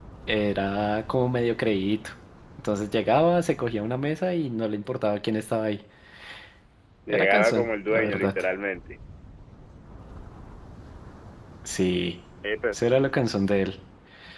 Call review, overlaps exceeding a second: present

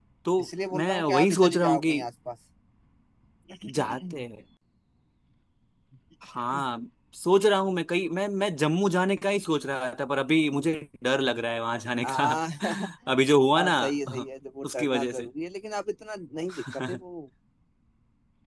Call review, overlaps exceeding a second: present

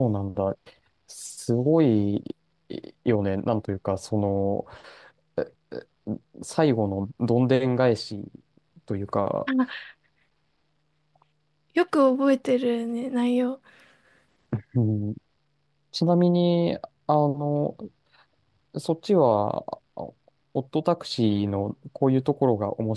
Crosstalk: none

